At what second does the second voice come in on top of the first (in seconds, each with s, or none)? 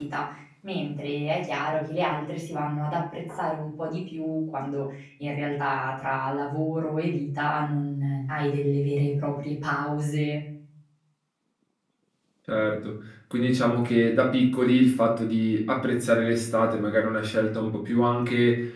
none